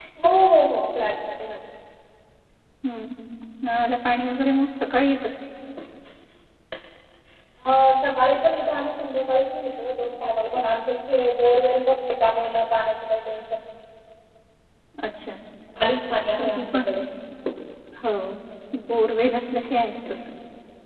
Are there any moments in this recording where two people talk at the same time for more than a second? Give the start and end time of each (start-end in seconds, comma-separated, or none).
none